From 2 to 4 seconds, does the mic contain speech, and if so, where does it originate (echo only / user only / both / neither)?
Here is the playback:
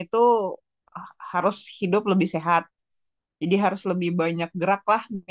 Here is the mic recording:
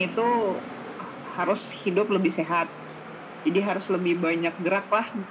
echo only